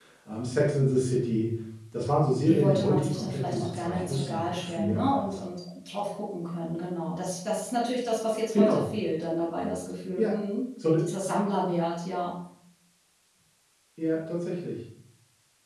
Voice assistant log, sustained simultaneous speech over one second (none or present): present